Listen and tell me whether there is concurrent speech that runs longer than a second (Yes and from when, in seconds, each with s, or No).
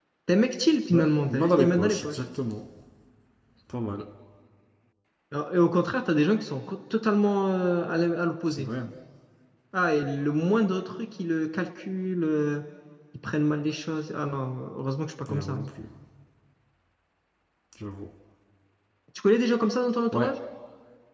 Yes, from 0.9 s